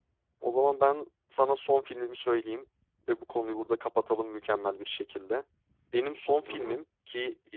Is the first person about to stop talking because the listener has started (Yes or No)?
No